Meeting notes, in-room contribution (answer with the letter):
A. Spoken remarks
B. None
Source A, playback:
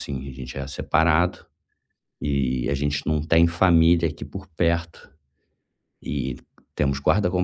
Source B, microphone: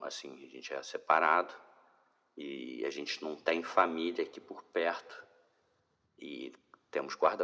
B